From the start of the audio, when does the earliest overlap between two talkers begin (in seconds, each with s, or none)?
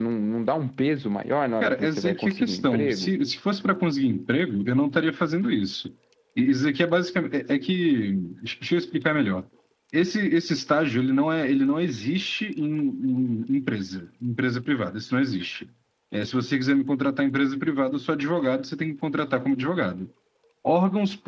1.6 s